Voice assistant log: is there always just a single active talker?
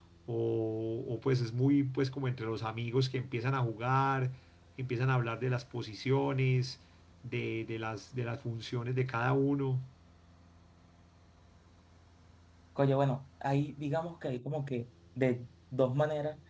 Yes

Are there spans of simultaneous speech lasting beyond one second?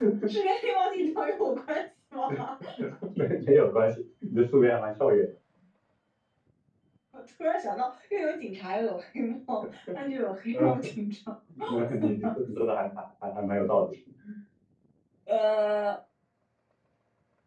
No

